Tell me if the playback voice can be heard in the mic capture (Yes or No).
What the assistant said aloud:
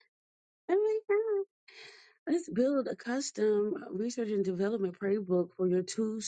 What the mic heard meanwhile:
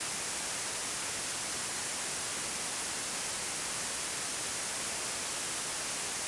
No